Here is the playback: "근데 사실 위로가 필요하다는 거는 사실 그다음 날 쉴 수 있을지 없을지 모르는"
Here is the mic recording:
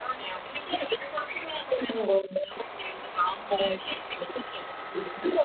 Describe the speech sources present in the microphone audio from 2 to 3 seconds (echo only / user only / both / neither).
echo only